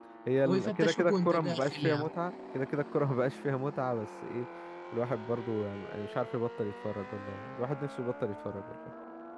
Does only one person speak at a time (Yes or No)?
No